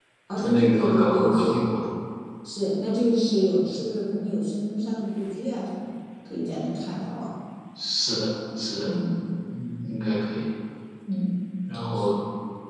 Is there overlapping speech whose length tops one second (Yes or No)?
Yes